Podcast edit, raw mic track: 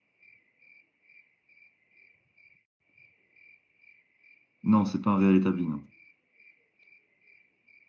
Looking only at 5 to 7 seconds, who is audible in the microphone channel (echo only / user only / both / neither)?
user only